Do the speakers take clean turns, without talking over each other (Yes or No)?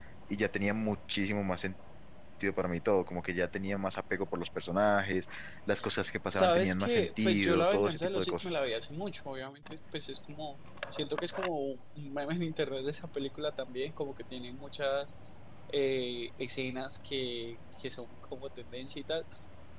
No